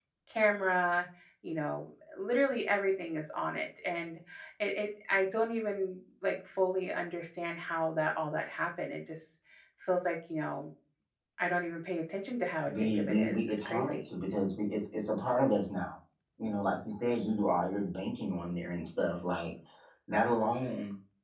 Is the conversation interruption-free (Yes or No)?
No